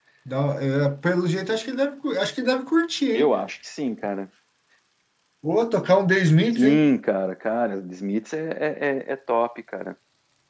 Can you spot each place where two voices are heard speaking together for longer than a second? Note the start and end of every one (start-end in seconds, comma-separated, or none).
none